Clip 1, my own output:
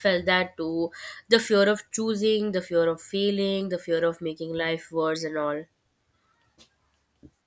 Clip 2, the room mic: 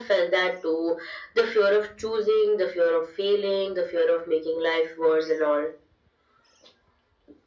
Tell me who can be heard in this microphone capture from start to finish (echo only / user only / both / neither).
echo only